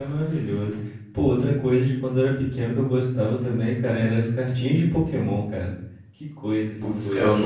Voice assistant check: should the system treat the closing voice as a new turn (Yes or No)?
Yes